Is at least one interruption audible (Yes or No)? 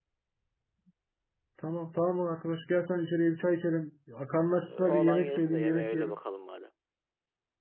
Yes